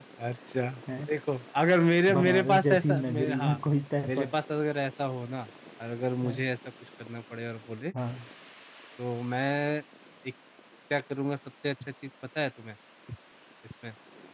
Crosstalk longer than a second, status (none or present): present